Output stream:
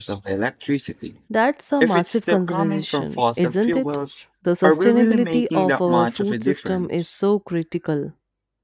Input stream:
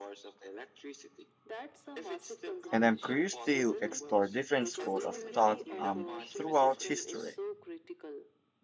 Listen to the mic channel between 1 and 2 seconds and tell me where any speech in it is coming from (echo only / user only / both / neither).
echo only